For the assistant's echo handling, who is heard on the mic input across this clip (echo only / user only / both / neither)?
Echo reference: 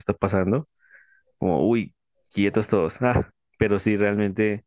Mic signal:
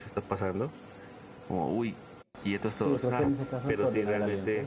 both